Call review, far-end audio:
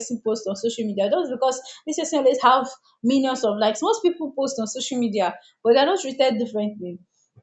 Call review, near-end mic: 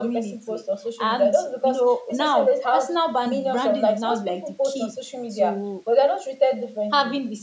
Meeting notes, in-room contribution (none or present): present